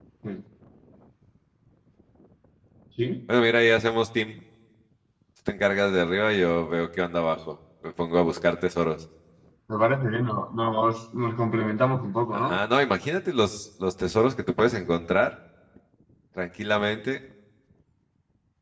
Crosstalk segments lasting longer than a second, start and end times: none

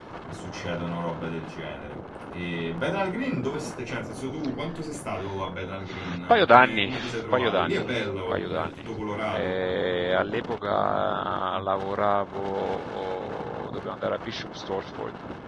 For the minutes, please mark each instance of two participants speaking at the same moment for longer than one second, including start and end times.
5.8-8.9

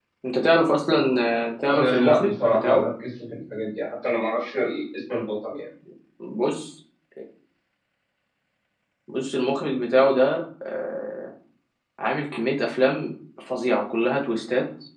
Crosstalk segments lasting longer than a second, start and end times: 1.6-2.9

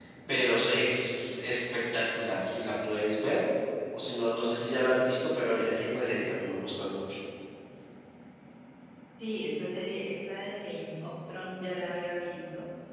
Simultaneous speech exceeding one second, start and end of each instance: none

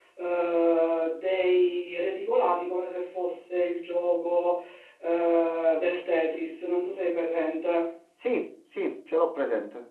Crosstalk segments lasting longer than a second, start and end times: none

